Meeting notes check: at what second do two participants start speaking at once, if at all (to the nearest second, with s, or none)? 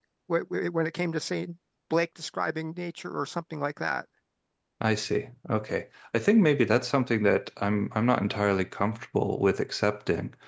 none